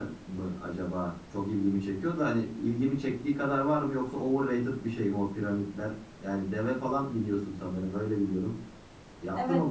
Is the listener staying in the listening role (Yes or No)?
No